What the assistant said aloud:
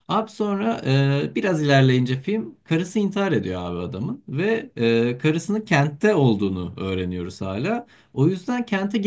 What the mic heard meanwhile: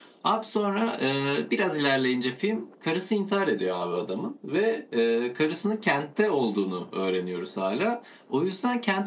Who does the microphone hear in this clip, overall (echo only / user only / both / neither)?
echo only